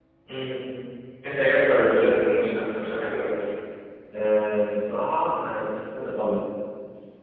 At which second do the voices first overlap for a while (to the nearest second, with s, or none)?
none